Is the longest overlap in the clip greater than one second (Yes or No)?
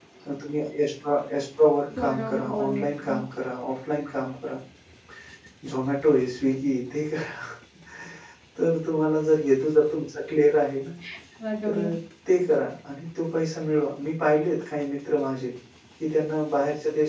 Yes